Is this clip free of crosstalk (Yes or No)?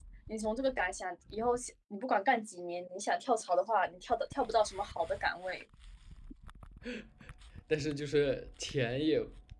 Yes